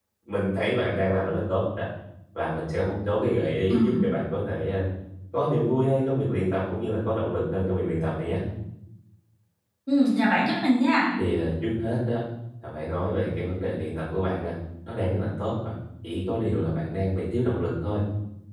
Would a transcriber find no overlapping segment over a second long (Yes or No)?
Yes